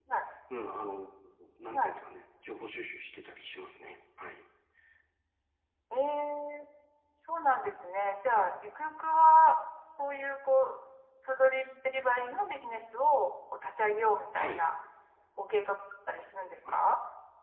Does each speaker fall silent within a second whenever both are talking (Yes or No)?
Yes